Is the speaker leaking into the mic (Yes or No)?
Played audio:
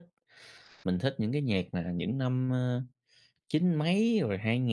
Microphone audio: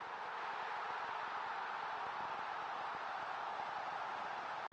No